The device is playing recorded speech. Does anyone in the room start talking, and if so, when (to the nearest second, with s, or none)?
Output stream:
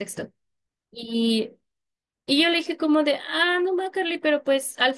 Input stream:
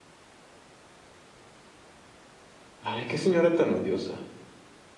3 s